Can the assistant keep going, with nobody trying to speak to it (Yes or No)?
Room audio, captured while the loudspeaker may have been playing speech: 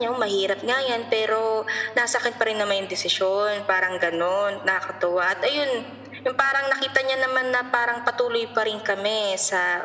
Yes